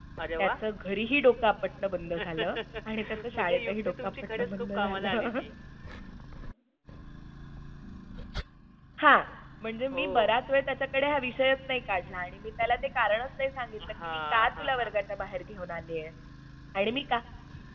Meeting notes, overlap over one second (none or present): present